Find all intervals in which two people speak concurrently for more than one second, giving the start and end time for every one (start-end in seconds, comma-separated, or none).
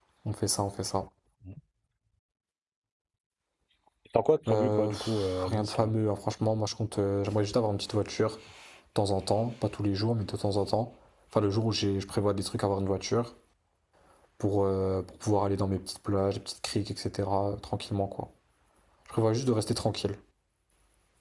4.5-5.9